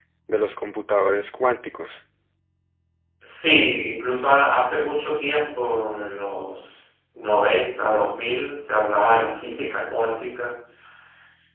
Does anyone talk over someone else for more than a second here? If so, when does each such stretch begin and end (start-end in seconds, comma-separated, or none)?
none